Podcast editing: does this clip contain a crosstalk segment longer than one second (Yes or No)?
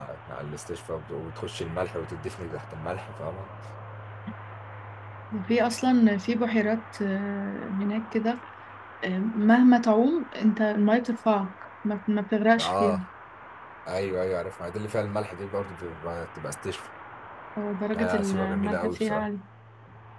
Yes